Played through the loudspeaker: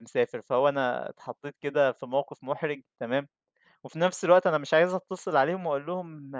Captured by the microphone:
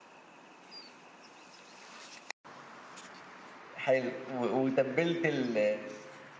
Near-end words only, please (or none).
حلو و وتبِّلت ال